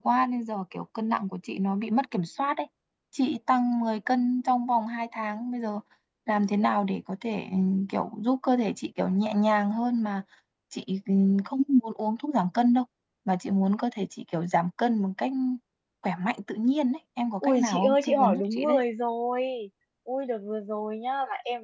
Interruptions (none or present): present